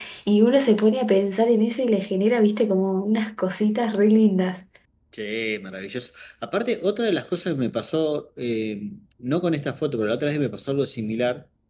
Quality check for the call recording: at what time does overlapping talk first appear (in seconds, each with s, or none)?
none